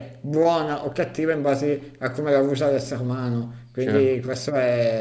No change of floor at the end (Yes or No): Yes